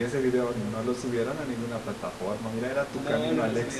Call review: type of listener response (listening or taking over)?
taking over